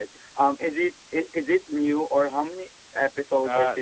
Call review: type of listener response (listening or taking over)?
taking over